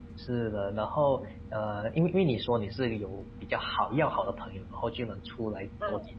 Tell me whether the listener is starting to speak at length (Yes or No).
No